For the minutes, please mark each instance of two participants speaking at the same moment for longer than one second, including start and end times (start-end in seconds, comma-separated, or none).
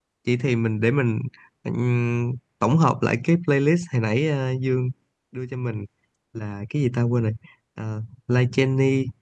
none